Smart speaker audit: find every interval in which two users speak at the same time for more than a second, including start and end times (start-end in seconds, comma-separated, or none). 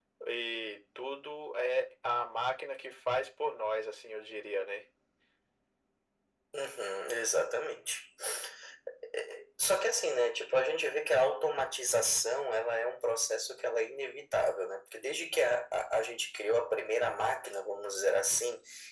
none